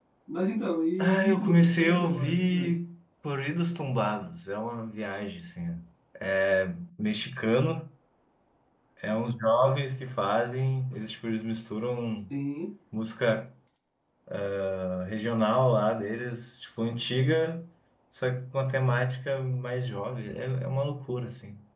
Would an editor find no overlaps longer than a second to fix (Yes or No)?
No